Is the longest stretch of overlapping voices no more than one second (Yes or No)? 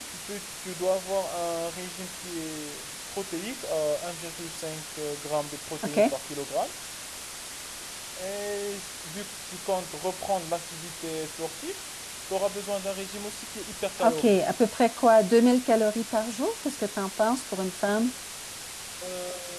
Yes